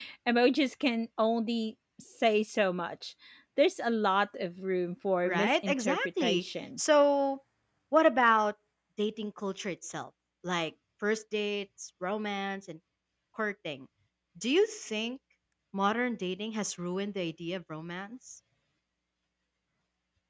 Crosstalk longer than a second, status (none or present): present